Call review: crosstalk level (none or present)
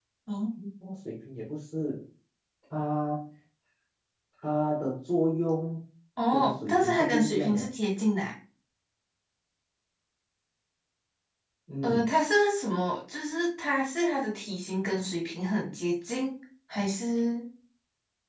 present